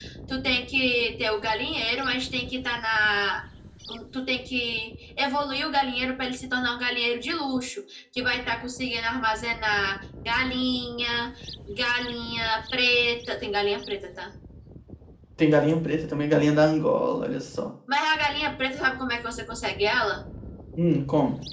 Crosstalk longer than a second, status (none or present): none